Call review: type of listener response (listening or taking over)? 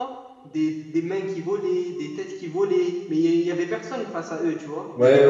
taking over